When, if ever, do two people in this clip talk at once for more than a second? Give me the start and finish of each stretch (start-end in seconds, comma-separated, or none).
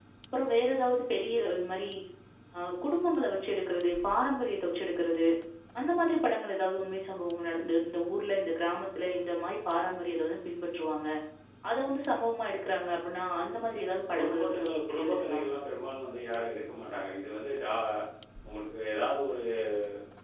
14.2-15.4